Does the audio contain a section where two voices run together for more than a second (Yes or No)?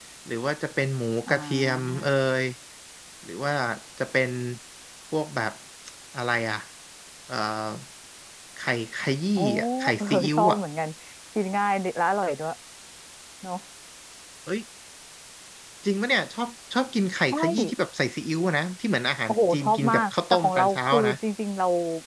Yes